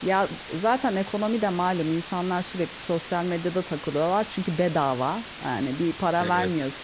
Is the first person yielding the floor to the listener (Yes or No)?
No